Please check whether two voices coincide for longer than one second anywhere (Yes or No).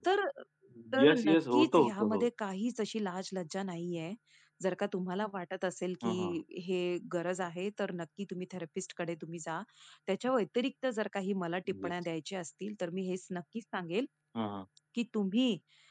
Yes